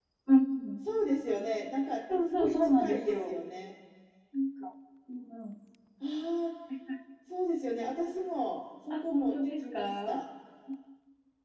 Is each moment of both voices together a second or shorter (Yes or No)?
No